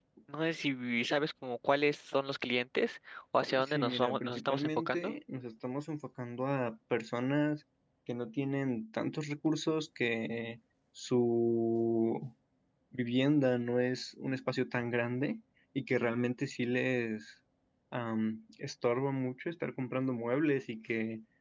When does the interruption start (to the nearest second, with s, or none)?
4 s